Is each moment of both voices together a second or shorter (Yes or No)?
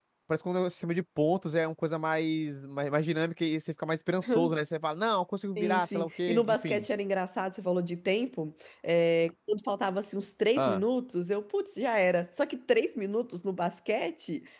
No